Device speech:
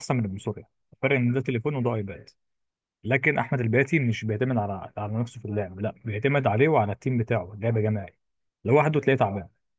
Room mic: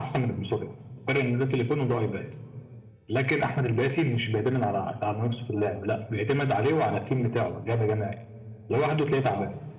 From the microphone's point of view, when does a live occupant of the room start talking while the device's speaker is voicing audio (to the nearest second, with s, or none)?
none